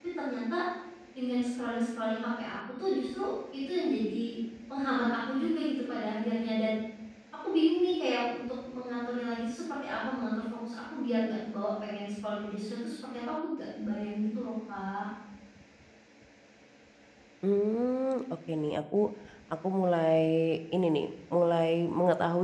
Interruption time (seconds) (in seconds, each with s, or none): none